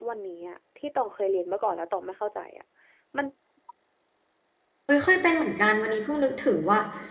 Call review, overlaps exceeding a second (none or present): none